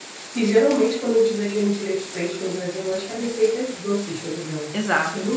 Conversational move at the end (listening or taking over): listening